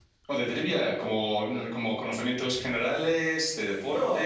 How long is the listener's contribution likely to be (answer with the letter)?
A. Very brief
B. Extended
B